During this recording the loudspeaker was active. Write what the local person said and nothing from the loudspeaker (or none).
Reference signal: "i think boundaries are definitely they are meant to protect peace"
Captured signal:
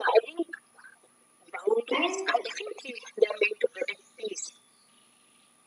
and